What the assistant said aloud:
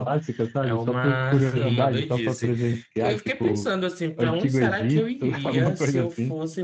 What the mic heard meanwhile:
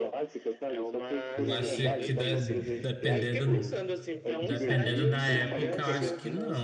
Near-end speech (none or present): present